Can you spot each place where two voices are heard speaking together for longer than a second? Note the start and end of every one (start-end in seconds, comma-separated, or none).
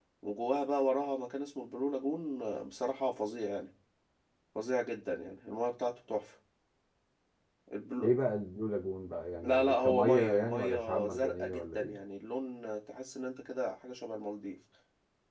9.4-12.0